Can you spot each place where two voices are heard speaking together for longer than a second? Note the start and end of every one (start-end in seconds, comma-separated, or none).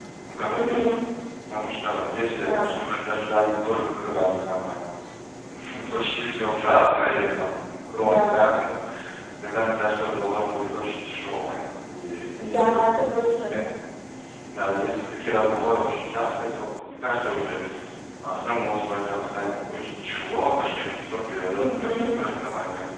none